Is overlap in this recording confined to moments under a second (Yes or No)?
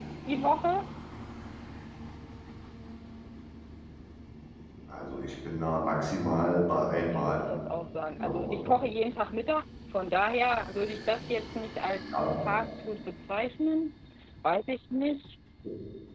Yes